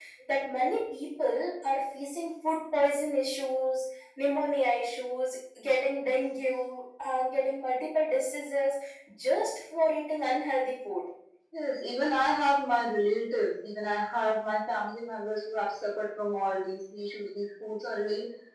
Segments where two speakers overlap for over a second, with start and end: none

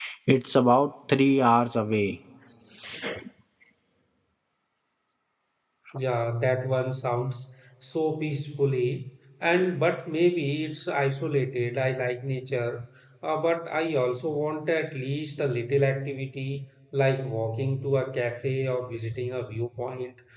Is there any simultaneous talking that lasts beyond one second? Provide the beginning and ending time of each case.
none

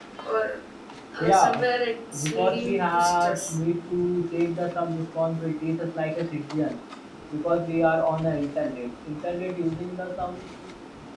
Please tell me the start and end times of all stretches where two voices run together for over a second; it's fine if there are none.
2.2-3.6

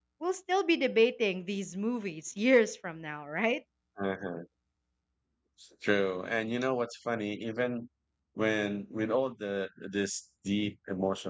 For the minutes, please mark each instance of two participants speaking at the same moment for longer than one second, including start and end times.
none

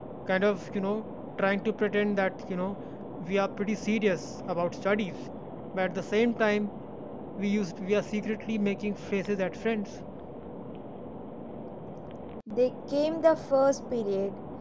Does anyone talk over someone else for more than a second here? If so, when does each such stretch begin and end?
none

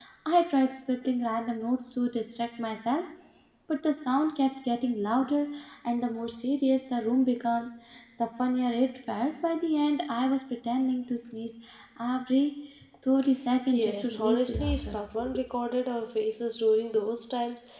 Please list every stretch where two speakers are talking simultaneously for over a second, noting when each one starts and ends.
13.7-15.0

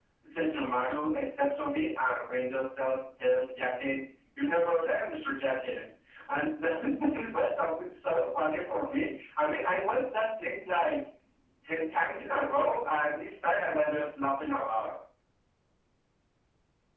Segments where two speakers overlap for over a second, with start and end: none

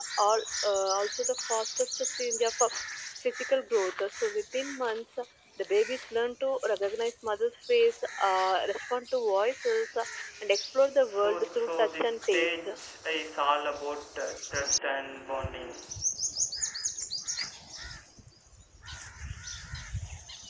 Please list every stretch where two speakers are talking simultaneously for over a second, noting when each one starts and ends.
11.1-12.7

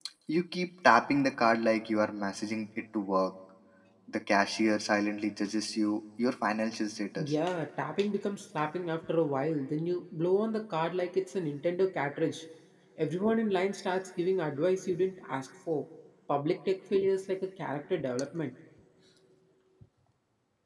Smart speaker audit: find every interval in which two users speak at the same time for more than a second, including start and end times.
none

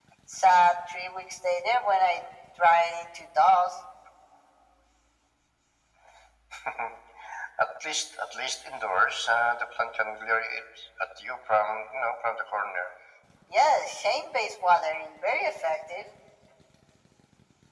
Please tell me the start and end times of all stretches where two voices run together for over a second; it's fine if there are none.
none

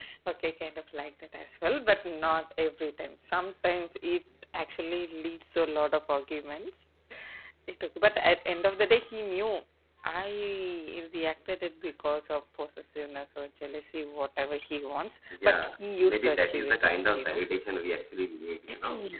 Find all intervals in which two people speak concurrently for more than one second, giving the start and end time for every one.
15.4-17.4

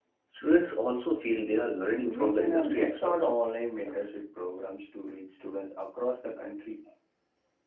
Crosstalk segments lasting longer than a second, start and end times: 2.0-3.3

